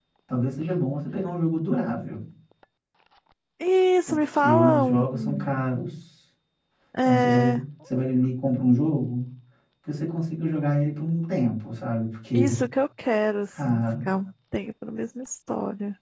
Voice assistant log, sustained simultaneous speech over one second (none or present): present